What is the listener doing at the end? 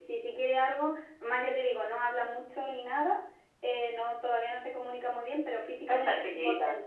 listening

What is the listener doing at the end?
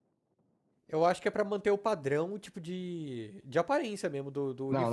taking over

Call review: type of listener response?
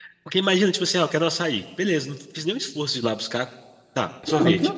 listening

